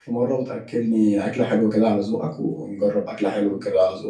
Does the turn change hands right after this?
Yes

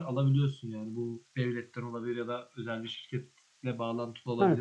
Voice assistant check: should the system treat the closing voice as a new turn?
Yes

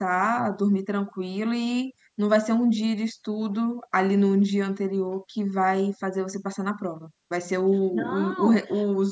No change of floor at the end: Yes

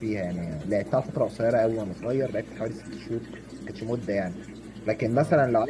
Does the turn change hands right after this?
No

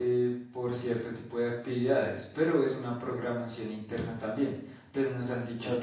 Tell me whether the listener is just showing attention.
Yes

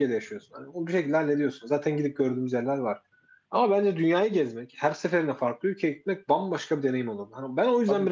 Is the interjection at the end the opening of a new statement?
Yes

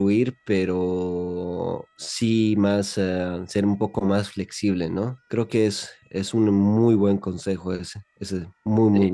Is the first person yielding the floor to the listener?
Yes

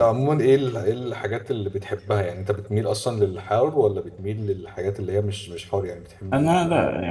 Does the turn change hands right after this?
Yes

